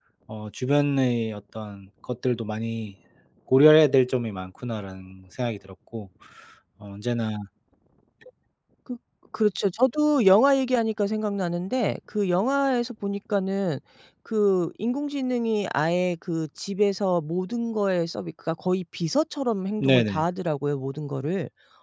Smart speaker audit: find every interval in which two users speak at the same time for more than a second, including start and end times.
none

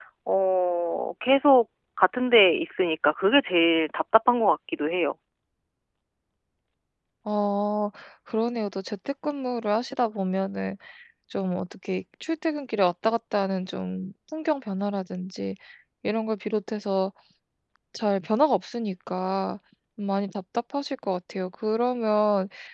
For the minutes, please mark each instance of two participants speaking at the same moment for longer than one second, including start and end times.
none

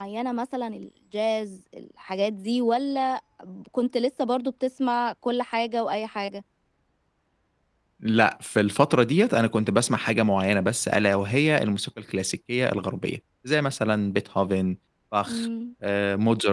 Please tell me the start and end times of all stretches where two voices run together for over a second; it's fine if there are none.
none

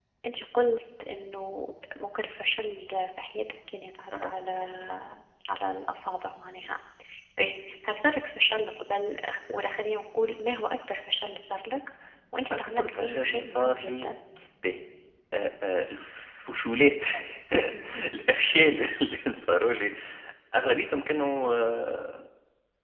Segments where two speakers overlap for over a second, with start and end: 12.5-14.1

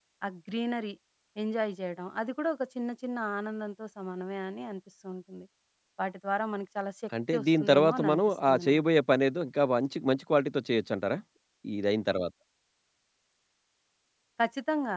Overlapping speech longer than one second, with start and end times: 7.3-8.8

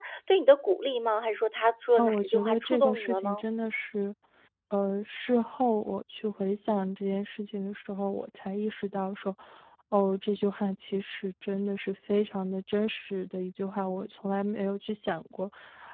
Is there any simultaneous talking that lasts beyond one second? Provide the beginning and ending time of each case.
1.9-3.4

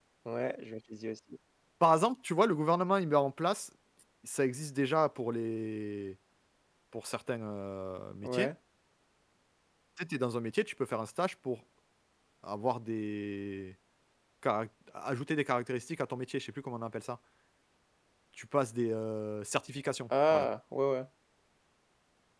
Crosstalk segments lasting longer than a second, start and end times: none

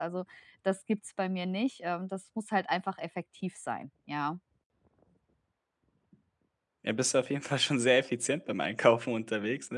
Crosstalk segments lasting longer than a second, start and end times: none

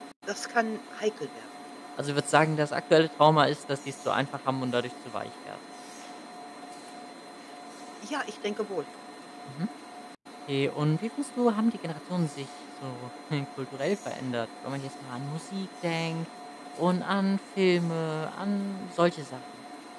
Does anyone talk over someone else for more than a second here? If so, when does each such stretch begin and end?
none

